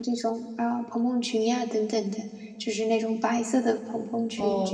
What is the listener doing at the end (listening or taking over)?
taking over